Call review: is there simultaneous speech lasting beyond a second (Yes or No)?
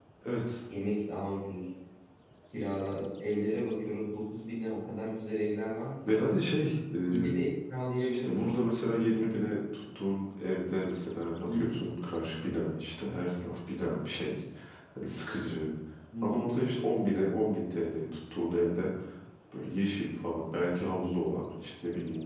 No